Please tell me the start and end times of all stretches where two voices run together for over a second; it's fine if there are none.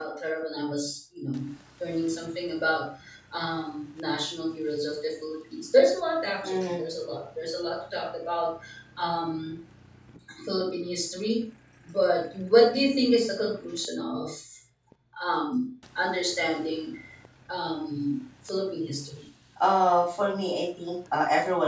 none

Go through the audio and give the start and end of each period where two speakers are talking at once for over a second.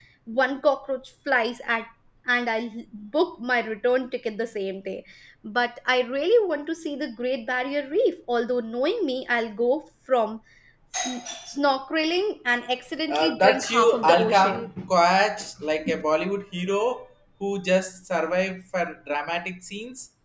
13.1-14.9

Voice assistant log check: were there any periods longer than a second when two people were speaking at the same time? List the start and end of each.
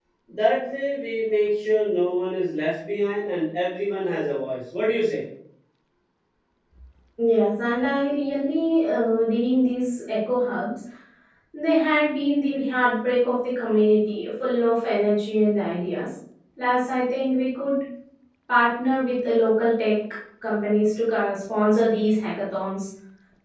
none

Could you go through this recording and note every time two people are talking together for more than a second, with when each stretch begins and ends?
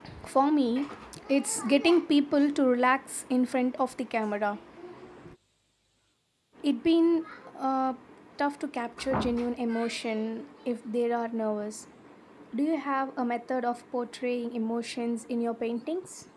none

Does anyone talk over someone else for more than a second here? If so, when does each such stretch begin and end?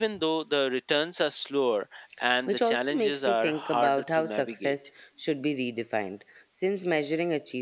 2.5-4.8

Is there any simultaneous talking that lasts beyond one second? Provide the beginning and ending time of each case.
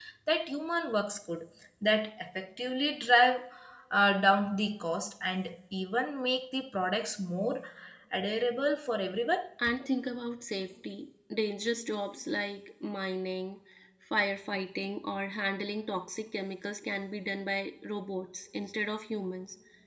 none

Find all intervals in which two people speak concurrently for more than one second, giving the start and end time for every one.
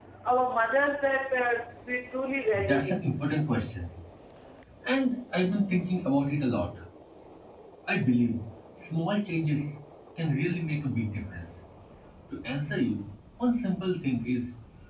none

